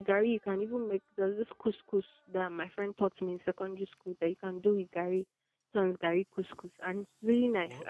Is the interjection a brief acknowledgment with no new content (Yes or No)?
Yes